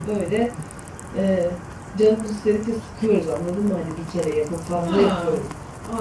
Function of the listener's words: taking over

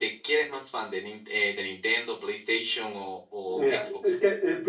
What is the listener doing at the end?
taking over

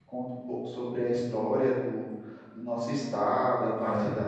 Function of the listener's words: listening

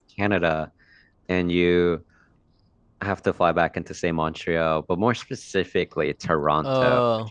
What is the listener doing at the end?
listening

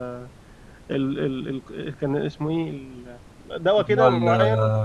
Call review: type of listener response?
taking over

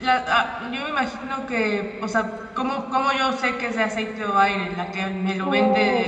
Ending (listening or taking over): taking over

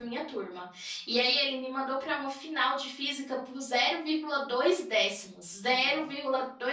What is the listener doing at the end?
listening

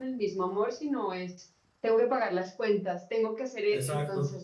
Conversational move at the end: listening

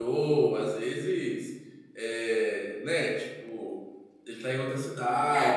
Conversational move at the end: taking over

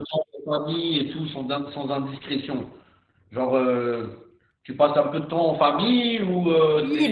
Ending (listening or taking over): taking over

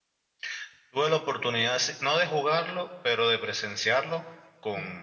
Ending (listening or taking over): listening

